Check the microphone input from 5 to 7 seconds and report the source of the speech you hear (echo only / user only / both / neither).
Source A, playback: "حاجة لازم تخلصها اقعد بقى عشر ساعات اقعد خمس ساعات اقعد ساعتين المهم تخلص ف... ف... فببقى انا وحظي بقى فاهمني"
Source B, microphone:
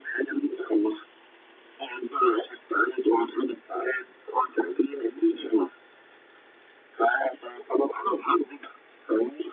echo only